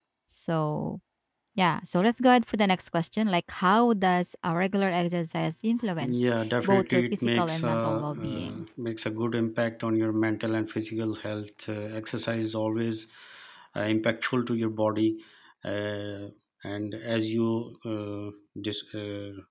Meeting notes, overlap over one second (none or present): present